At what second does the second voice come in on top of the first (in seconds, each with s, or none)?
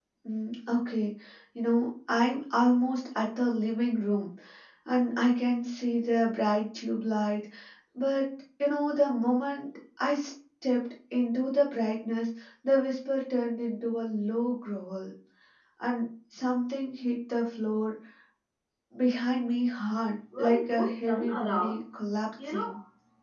20.4 s